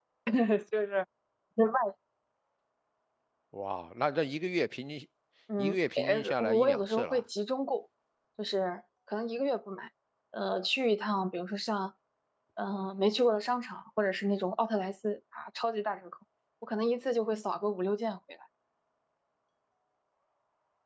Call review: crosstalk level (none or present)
present